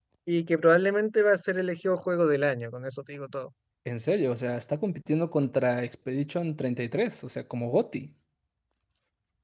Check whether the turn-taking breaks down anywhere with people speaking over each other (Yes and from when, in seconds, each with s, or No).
No